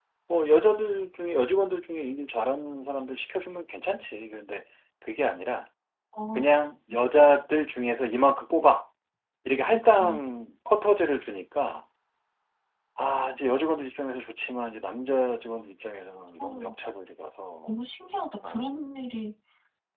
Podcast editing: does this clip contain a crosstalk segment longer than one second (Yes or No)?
No